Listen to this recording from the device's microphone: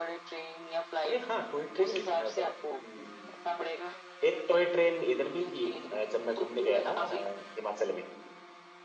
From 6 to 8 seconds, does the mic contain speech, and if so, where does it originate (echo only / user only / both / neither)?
both